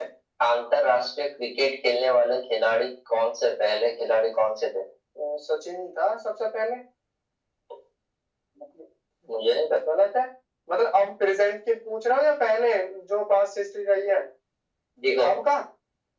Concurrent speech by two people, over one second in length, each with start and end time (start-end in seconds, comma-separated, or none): none